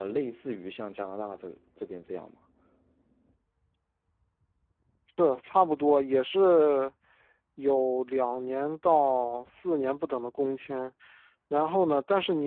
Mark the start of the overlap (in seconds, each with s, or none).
none